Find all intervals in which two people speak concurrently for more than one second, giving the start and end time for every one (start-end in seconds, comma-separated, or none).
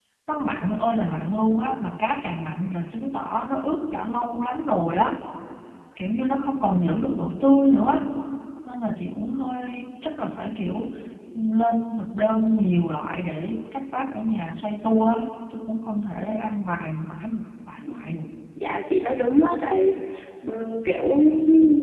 none